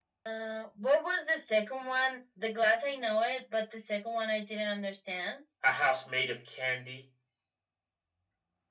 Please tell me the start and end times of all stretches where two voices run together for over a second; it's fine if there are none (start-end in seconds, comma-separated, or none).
none